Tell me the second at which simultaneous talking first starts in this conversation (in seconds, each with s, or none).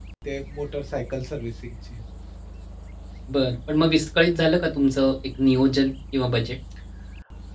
none